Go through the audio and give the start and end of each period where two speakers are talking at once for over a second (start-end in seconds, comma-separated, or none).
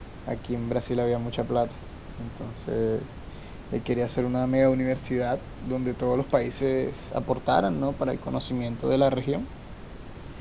none